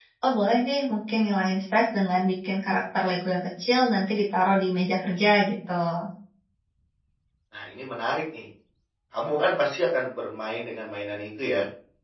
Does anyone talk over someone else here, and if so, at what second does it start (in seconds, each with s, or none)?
none